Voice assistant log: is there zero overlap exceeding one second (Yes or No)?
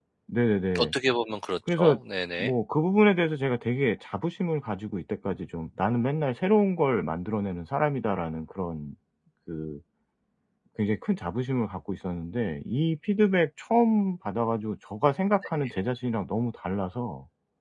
Yes